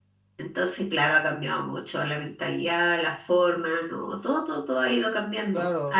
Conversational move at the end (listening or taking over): taking over